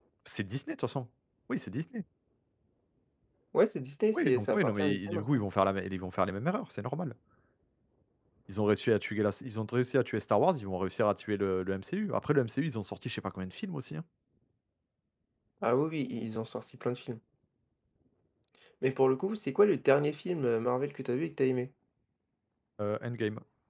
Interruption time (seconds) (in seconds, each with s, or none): 4.1 s